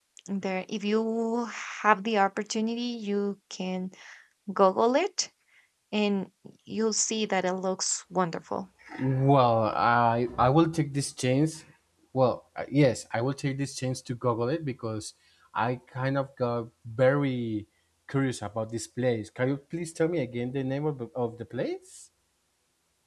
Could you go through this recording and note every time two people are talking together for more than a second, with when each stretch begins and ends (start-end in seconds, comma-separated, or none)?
none